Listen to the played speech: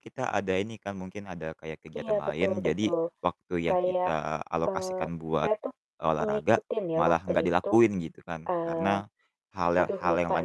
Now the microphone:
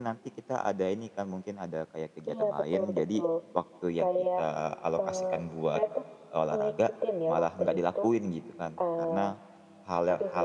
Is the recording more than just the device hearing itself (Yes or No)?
No